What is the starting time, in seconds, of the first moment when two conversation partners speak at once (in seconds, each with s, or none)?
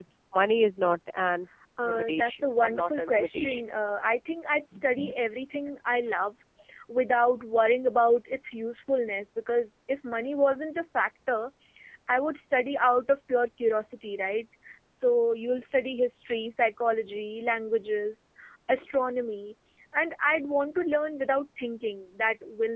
1.8 s